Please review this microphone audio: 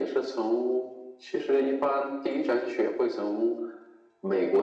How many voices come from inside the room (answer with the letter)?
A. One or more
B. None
B